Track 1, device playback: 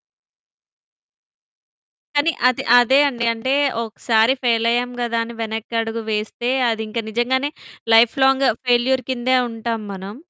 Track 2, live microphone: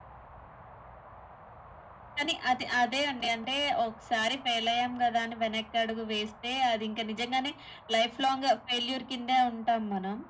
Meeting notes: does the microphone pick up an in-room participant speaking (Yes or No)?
No